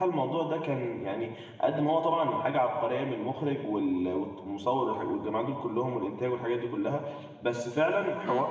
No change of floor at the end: Yes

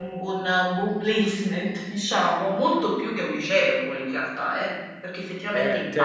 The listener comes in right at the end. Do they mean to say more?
Yes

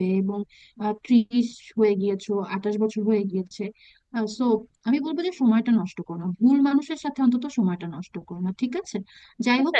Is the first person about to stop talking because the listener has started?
No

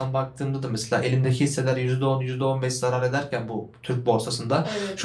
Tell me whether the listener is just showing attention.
Yes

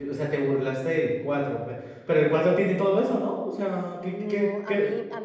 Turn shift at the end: Yes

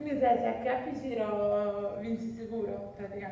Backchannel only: No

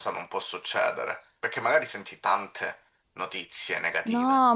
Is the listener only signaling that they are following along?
No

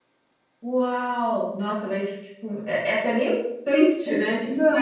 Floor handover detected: Yes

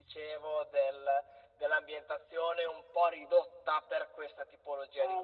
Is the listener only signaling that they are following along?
No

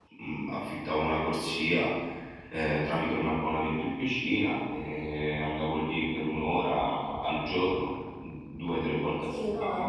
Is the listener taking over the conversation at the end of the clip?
Yes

